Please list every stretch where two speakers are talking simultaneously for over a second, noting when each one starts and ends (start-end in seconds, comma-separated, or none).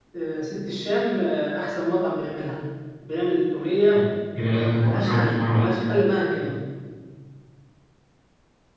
4.5-5.8